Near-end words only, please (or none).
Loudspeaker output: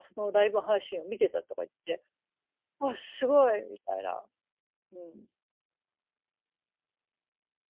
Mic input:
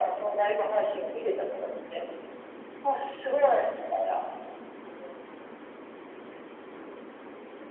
none